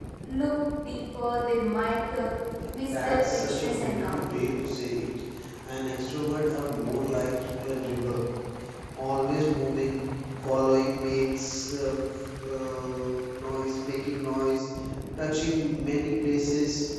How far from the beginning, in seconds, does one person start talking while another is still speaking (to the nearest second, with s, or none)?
3 s